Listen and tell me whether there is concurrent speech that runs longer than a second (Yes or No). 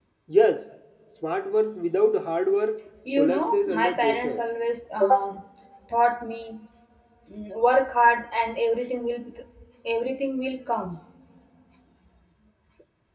Yes